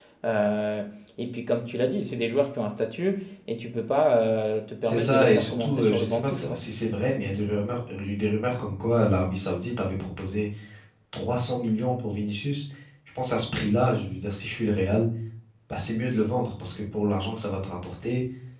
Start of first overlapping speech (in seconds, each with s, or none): 4.8 s